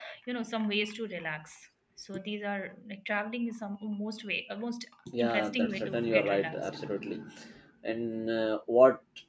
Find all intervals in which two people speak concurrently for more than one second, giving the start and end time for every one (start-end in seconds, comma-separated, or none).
5.2-6.6